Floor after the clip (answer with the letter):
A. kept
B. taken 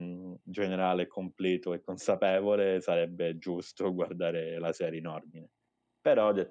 A